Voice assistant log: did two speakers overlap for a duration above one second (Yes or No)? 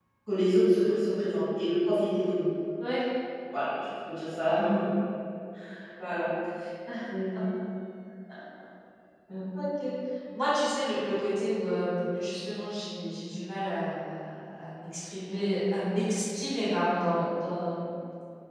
No